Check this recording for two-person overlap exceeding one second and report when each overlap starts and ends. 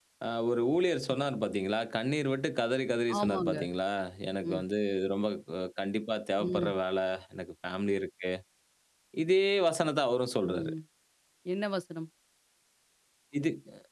none

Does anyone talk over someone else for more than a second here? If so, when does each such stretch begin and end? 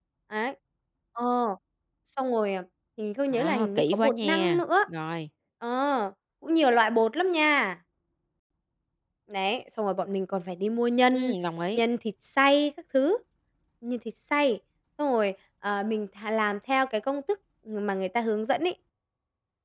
3.3-4.6

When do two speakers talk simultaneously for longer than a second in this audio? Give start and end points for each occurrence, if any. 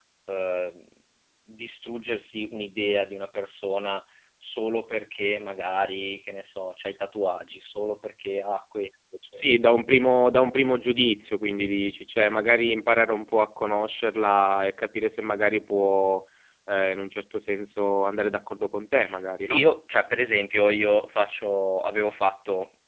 none

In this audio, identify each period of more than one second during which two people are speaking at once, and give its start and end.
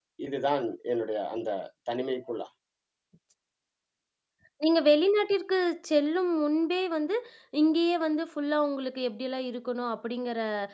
none

